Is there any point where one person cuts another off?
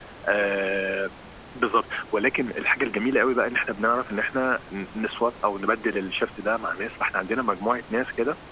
No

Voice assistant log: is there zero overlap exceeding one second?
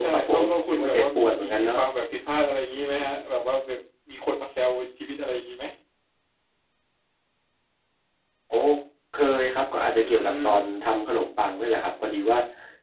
No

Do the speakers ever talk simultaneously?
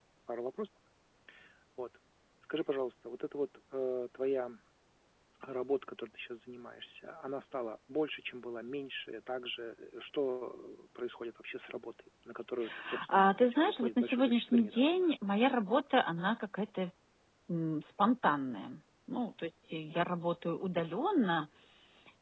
Yes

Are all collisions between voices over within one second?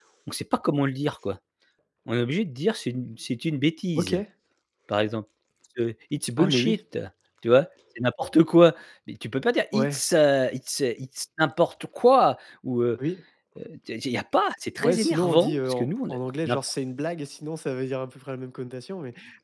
No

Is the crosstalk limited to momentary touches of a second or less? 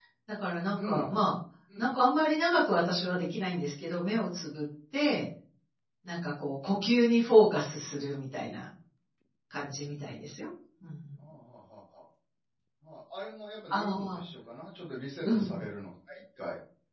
Yes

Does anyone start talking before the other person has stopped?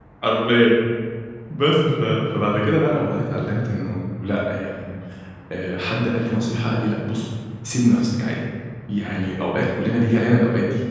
No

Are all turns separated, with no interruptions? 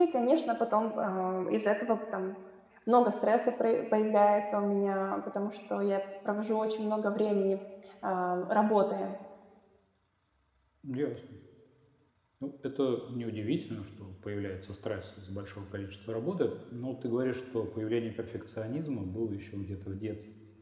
Yes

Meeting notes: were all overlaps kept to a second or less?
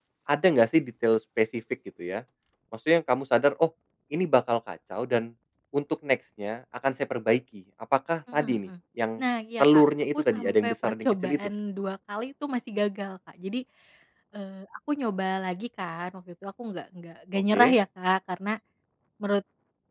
No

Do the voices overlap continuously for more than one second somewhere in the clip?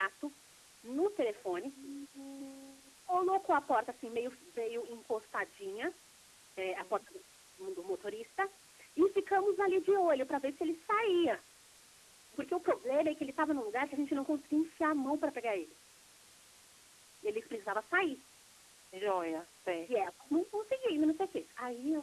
No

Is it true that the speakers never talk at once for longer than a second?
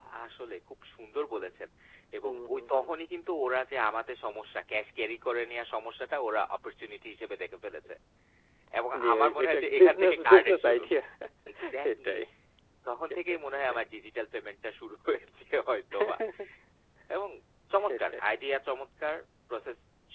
No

